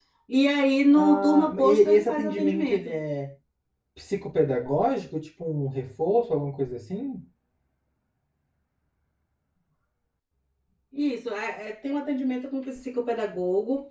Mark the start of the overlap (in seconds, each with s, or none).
0.9 s